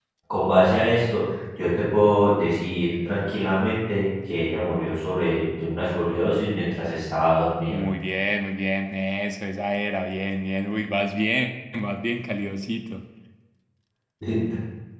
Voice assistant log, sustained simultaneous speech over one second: none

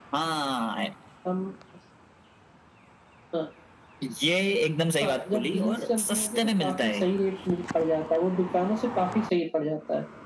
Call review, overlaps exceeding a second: present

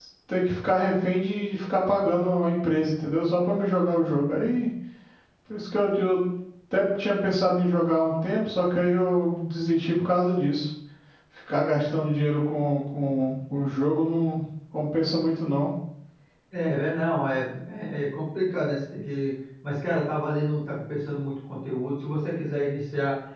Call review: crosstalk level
none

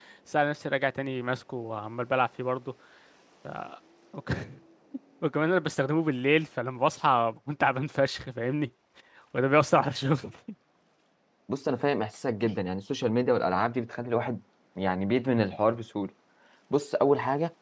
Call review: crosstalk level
none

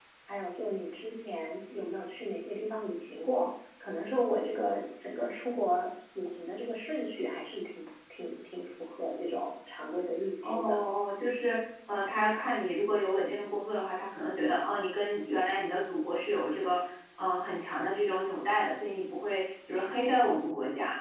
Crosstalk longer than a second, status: none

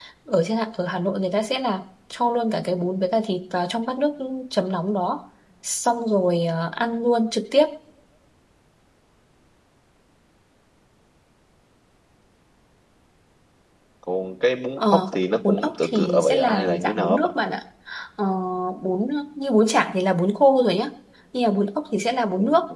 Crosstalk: present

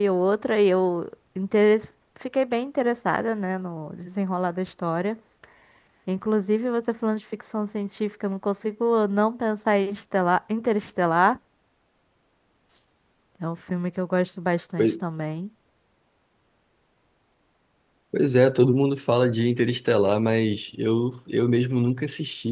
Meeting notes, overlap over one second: none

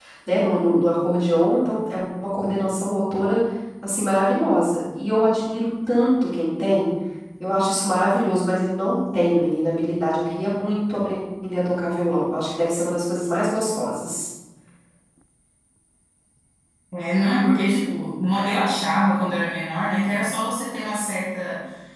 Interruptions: none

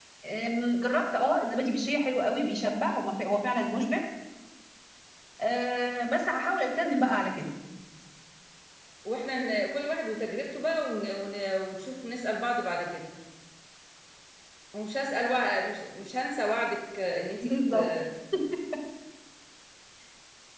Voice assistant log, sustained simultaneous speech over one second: none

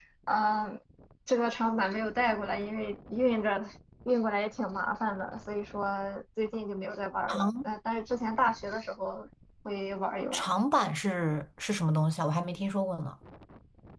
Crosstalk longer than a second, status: none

